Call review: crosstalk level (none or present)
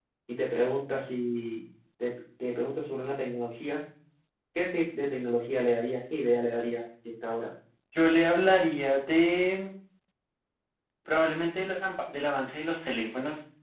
none